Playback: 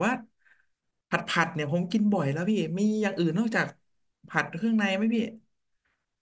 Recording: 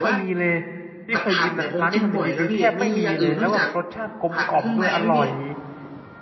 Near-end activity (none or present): present